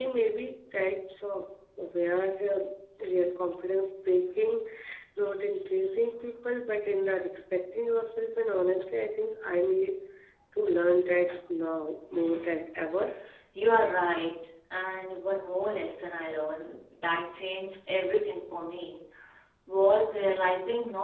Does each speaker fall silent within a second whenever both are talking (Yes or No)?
Yes